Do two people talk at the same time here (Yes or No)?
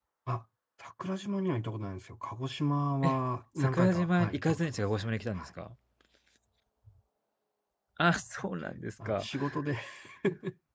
Yes